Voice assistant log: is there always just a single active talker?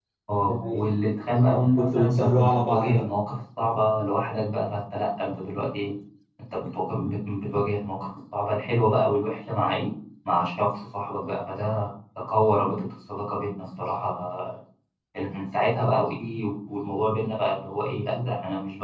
No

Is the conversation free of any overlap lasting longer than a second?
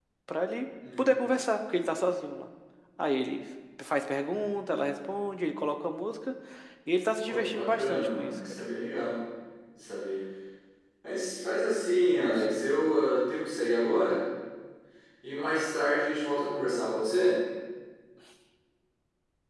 No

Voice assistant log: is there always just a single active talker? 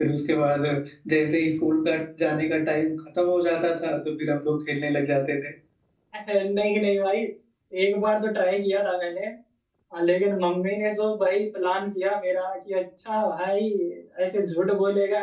Yes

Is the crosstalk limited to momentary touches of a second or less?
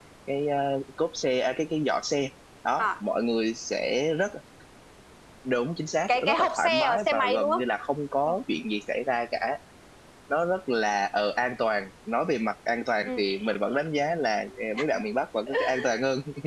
No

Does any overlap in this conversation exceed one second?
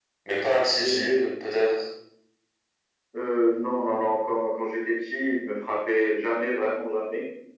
No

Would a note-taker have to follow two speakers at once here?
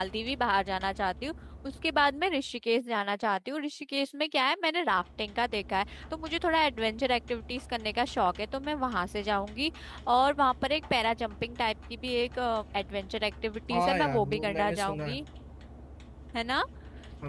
Yes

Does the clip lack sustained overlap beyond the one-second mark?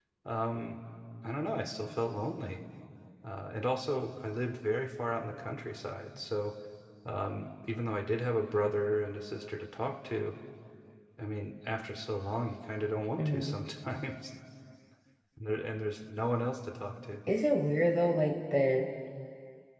Yes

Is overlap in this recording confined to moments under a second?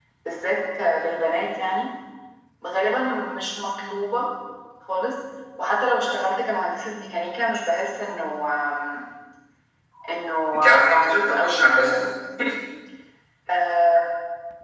No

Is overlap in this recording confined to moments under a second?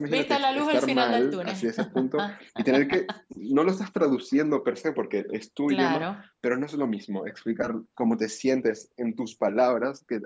No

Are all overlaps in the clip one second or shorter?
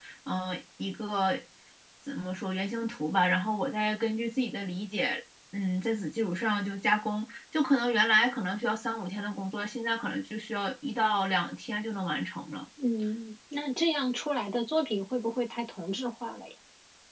Yes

